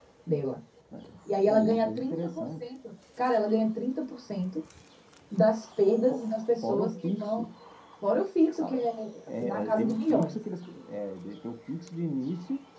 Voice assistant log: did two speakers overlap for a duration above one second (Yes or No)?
Yes